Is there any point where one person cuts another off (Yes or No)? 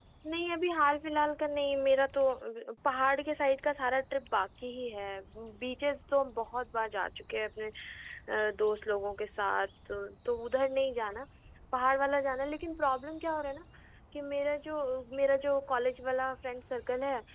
No